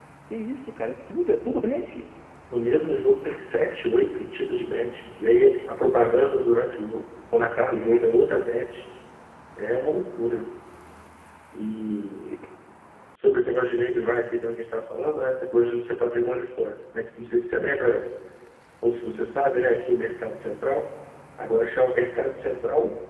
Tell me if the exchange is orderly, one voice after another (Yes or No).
Yes